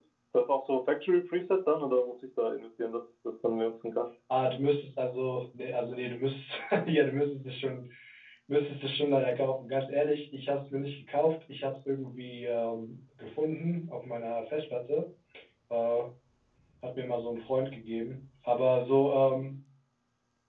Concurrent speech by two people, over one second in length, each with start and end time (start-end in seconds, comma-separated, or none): none